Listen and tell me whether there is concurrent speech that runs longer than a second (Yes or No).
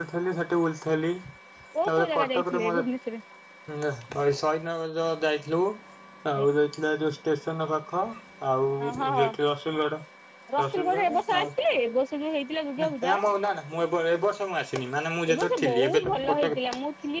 Yes